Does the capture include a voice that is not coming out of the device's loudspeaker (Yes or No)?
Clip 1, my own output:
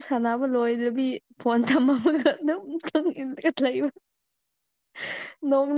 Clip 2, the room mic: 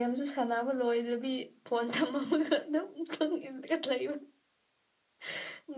No